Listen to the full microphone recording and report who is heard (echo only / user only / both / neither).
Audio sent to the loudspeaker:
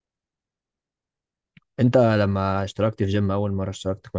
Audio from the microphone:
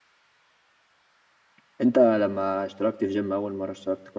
echo only